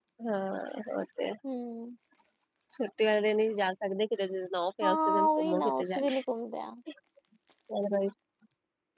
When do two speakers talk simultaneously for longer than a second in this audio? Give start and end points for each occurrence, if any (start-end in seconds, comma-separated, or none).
4.8-6.2